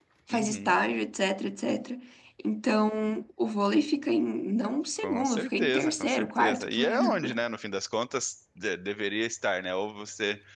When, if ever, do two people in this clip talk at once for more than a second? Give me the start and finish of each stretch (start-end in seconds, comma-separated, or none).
5.0-7.2